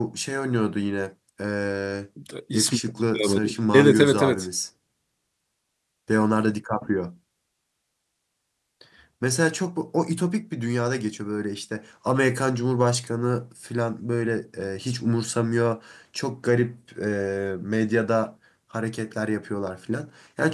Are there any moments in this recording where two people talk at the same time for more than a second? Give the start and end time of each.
2.5-4.5

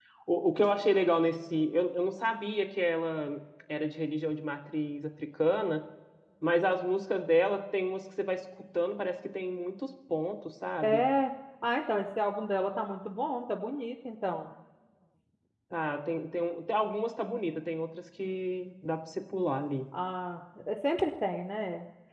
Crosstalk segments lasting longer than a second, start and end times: none

